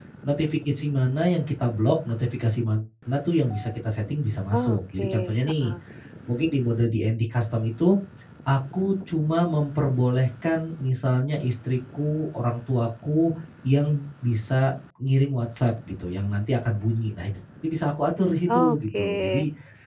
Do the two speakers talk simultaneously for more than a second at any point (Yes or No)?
Yes